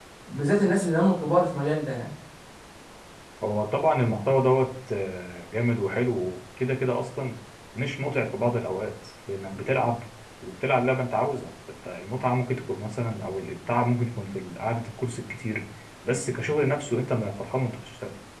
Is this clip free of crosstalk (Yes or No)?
Yes